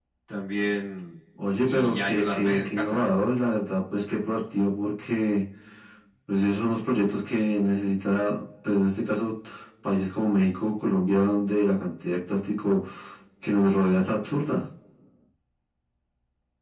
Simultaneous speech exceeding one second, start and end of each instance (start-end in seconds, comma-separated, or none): 1.6-3.1